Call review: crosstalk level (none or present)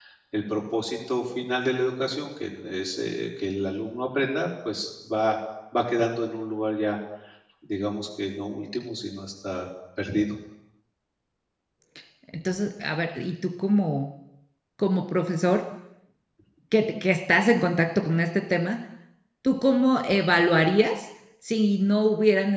none